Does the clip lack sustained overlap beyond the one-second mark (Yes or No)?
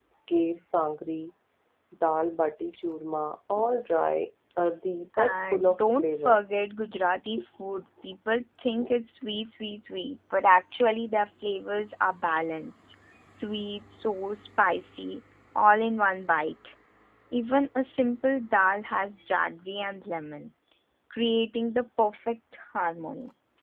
No